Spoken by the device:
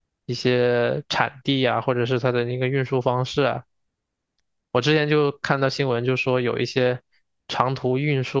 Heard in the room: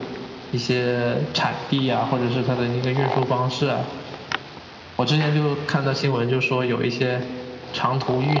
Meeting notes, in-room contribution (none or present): none